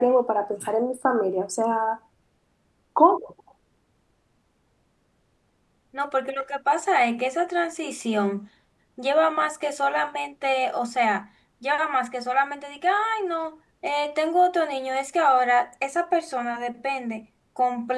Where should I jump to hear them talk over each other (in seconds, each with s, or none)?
none